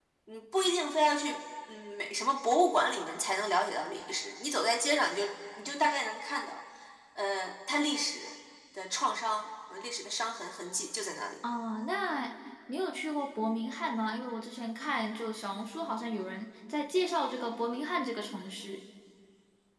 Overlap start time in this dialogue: none

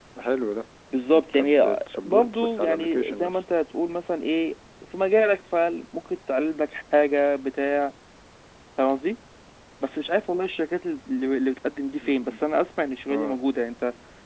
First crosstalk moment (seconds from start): 1.1 s

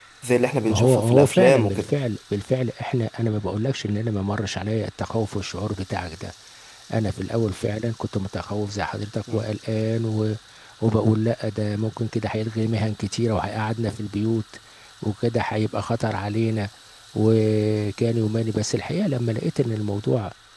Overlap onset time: 0.7 s

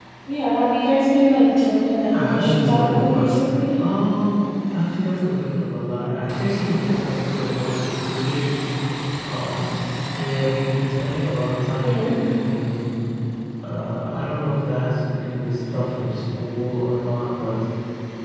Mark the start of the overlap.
2.1 s

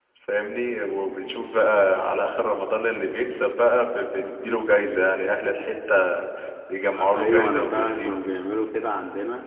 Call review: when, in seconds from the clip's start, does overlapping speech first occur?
6.9 s

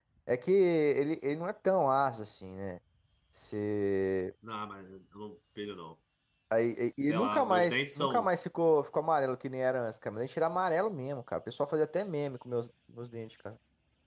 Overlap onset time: 7.0 s

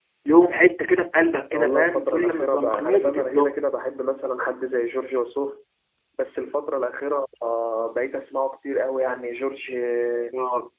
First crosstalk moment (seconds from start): 1.5 s

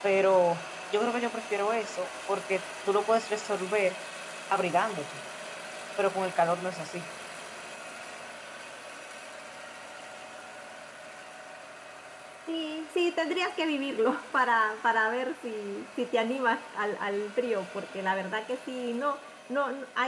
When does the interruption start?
none

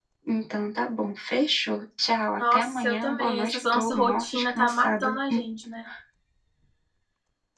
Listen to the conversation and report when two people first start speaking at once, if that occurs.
2.4 s

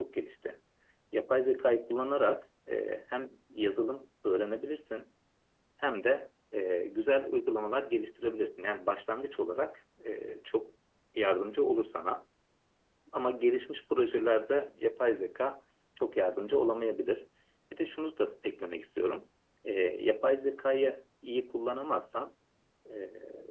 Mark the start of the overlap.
none

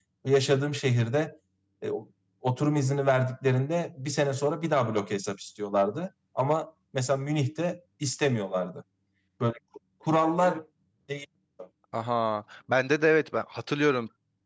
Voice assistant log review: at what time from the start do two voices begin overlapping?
none

